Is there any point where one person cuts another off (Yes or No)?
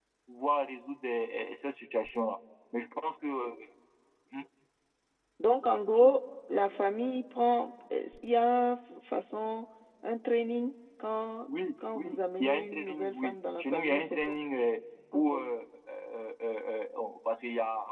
Yes